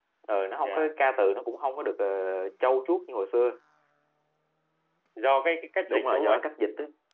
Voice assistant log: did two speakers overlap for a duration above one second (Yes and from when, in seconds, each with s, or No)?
No